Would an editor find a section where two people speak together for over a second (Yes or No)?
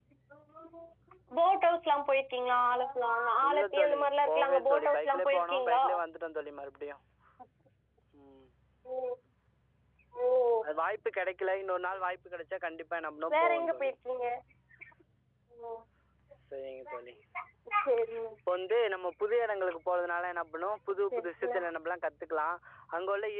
Yes